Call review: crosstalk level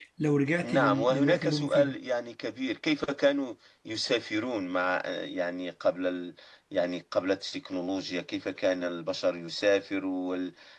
present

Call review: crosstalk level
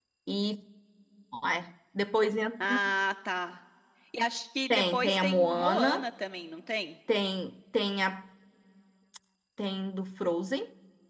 present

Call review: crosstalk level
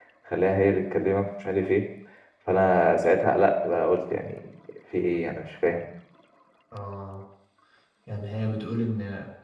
none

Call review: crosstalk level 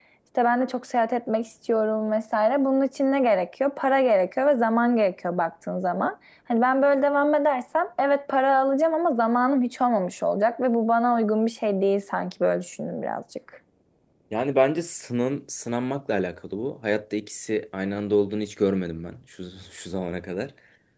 none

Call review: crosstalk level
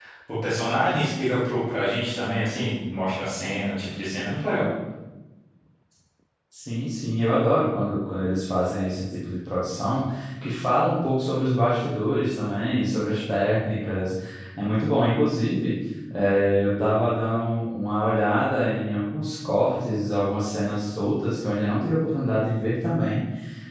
none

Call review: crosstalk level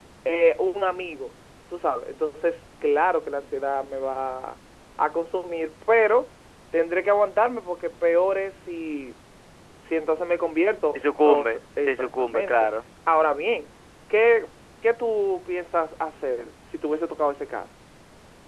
present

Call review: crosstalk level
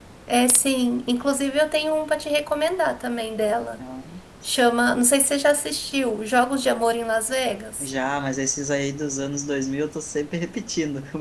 none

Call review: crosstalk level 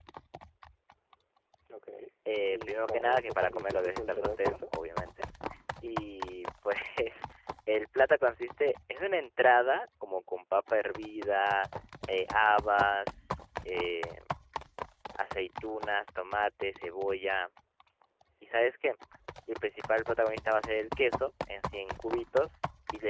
present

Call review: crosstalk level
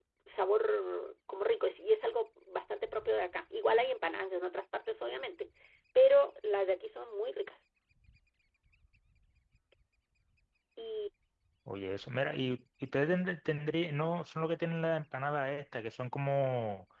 none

